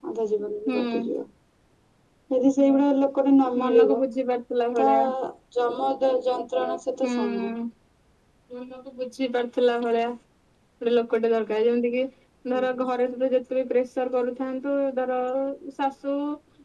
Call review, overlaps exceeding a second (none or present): none